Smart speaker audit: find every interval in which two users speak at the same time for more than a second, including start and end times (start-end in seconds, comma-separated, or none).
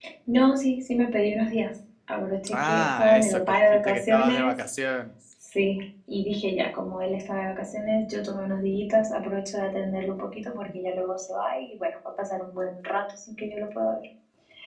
2.5-4.5